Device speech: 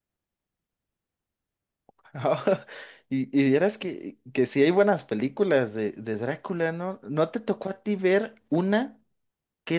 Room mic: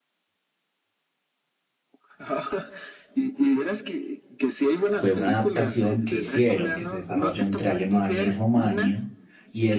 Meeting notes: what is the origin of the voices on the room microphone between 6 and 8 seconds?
both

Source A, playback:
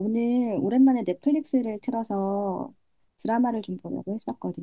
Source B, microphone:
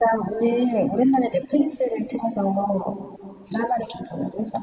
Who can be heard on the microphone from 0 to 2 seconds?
echo only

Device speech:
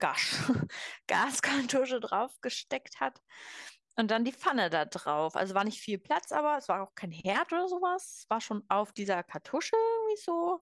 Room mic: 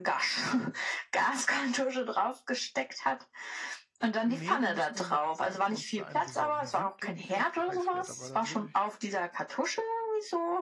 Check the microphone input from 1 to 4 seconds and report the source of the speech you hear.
echo only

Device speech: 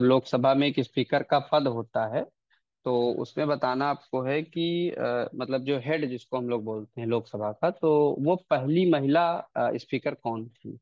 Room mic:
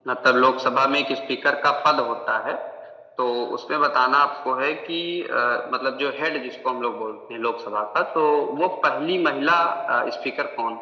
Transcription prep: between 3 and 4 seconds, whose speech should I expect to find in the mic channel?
echo only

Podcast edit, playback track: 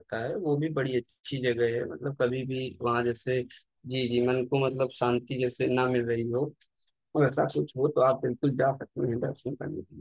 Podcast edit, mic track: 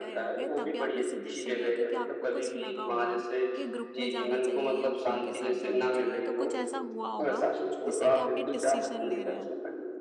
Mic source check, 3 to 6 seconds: both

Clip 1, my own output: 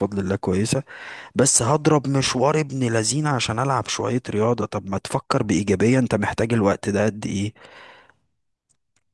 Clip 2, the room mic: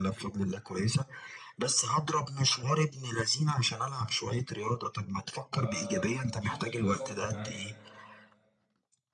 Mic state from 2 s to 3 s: echo only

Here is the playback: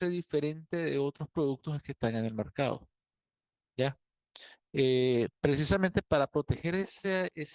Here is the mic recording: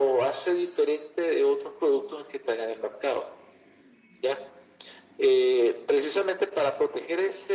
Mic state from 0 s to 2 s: echo only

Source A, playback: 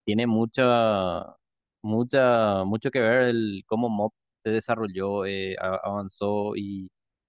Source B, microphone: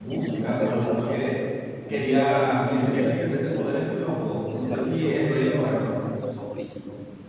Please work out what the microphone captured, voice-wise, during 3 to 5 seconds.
both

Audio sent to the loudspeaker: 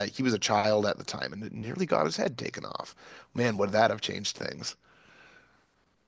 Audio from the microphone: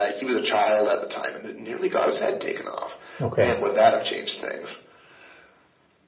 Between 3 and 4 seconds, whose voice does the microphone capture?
both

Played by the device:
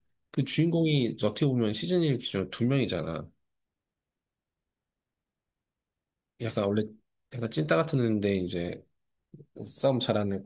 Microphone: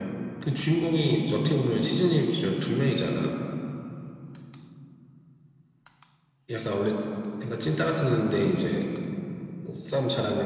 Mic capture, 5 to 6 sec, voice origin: neither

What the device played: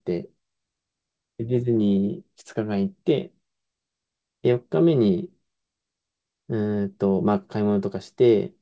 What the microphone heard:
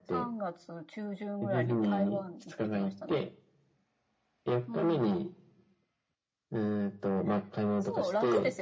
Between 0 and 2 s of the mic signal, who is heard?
both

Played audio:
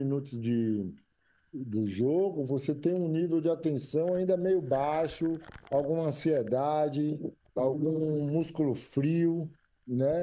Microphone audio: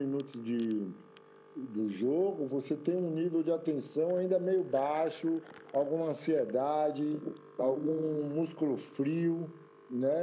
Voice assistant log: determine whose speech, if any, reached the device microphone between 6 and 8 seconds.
echo only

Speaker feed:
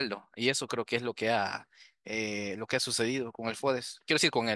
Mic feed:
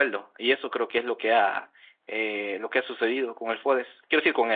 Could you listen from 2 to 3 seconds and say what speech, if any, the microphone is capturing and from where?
echo only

